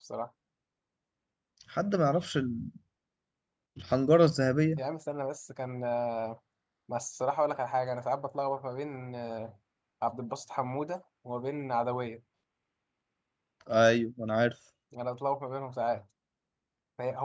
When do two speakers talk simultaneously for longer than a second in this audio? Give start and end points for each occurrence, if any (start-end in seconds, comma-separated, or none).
none